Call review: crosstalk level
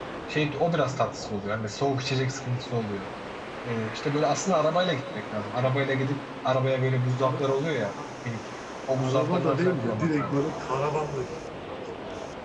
present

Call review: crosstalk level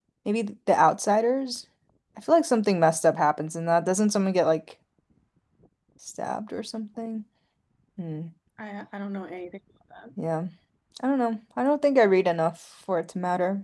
none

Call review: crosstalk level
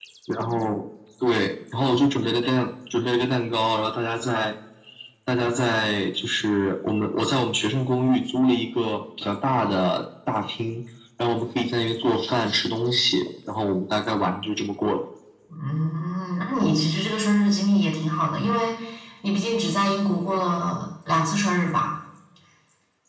none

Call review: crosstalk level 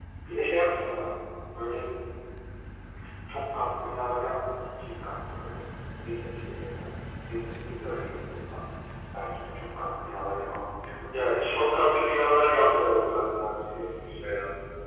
present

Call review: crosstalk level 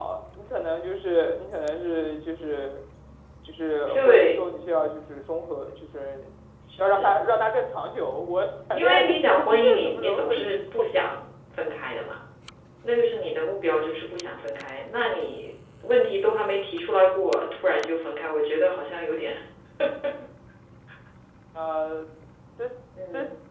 present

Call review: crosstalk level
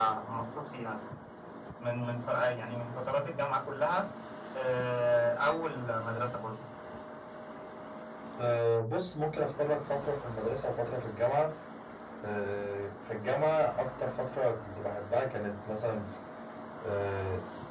none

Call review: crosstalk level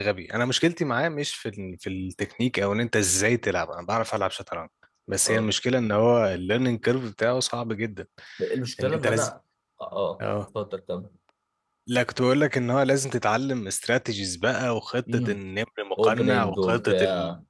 present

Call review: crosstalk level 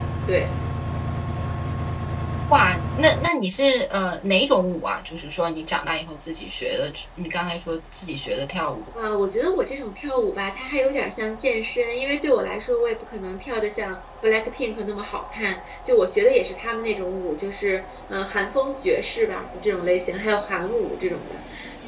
none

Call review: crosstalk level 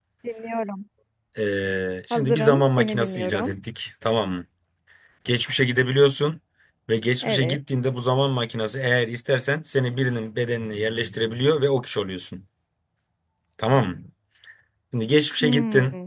present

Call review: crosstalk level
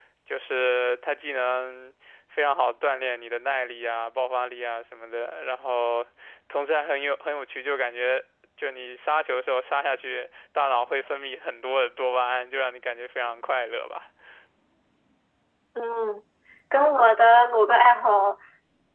none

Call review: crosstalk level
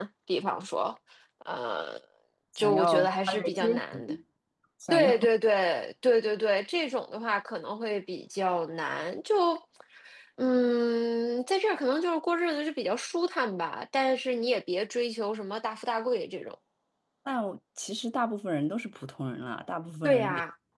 present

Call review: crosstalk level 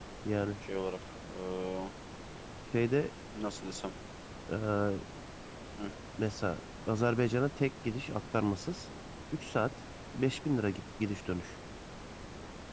none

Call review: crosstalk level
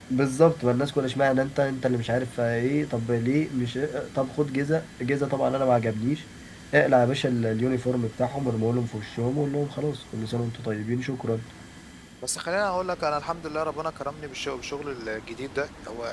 none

